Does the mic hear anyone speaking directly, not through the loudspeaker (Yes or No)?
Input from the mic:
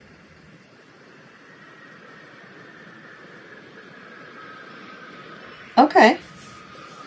Yes